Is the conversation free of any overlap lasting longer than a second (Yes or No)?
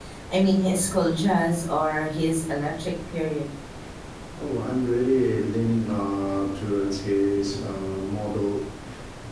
Yes